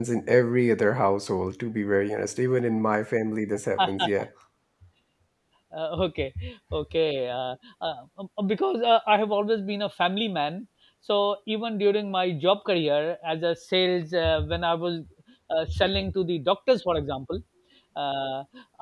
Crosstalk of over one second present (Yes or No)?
No